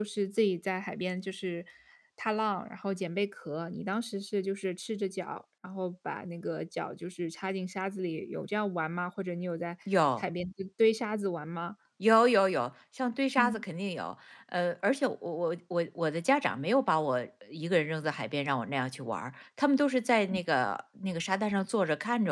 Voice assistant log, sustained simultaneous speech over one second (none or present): none